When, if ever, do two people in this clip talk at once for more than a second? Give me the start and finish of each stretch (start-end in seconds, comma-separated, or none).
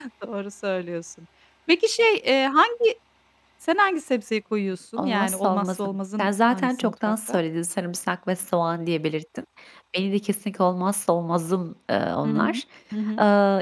5.0-7.4